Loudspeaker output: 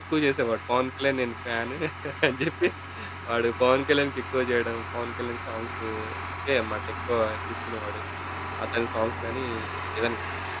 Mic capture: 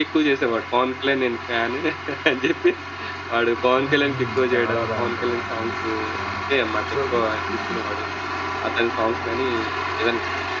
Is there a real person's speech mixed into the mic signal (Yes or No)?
Yes